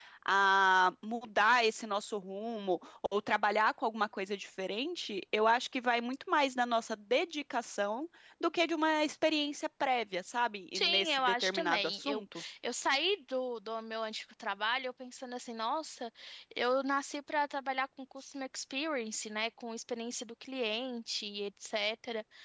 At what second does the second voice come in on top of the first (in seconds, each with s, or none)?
10.7 s